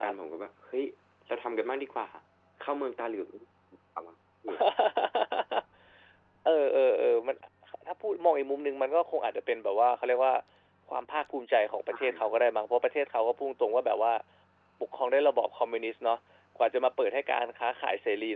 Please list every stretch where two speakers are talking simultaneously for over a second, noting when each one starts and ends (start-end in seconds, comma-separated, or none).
none